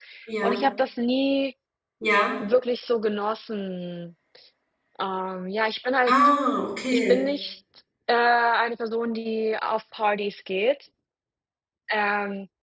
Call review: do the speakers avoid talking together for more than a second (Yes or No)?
Yes